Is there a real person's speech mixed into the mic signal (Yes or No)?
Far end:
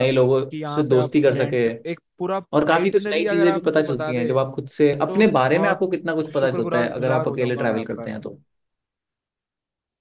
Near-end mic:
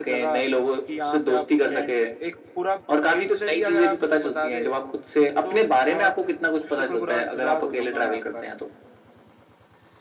No